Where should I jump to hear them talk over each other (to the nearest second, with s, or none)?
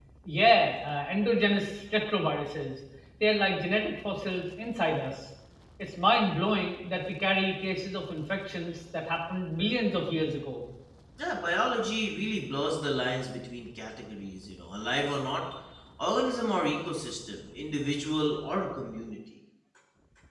none